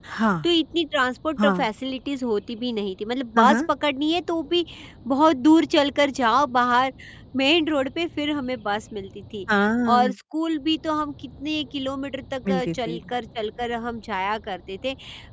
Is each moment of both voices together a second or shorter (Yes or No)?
Yes